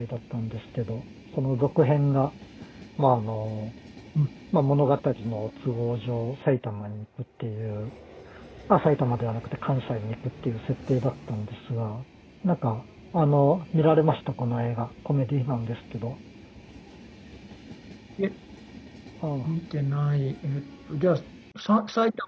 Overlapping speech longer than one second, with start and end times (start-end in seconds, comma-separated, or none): none